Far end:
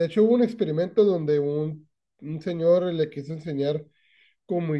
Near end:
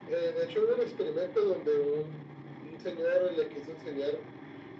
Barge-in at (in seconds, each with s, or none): none